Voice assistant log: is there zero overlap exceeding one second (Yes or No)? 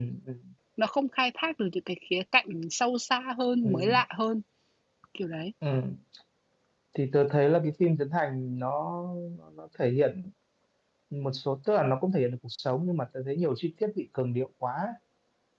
Yes